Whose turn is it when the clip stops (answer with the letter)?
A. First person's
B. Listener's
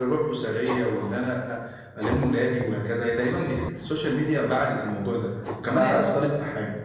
A